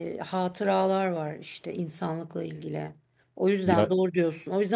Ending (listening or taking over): listening